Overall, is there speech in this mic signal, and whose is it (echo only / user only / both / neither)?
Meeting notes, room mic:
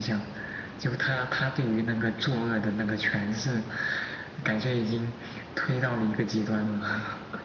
echo only